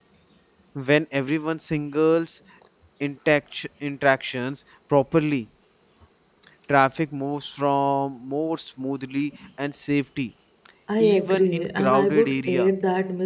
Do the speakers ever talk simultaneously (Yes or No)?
Yes